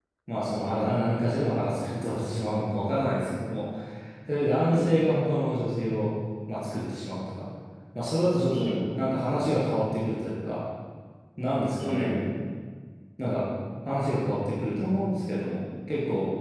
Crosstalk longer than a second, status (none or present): none